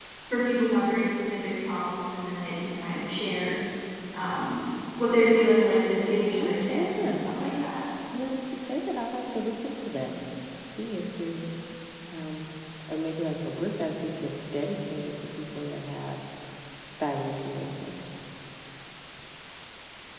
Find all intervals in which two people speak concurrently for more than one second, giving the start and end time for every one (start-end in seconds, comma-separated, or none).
6.4-7.7